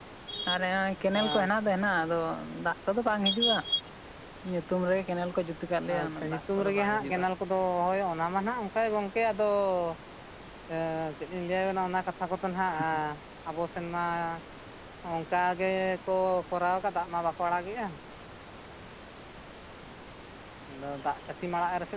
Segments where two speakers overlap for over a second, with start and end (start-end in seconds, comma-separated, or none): 6.0-7.2